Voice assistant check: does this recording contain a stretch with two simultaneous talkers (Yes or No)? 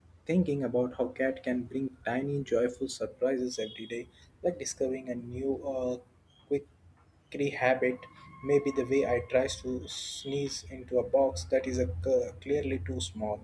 No